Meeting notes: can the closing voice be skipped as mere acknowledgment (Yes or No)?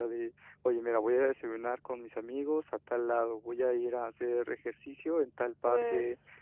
Yes